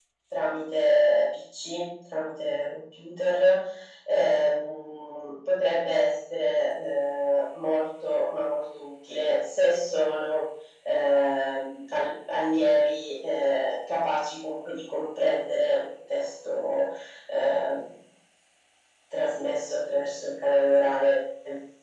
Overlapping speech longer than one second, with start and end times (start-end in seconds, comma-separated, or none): none